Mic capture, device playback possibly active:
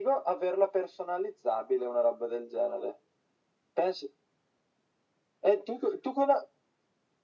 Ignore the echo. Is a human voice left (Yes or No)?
No